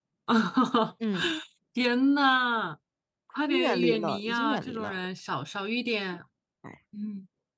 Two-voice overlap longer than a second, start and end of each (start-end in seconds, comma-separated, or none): 3.5-5.0